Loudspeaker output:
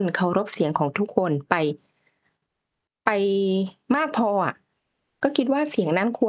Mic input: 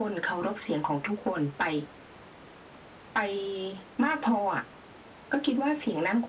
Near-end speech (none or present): none